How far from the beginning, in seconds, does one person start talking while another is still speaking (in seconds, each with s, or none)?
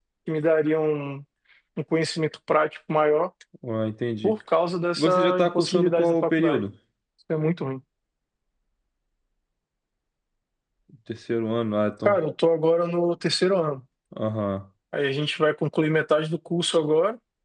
5.0 s